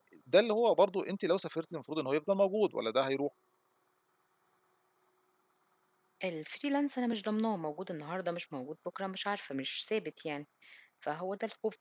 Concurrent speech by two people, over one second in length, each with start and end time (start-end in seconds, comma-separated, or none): none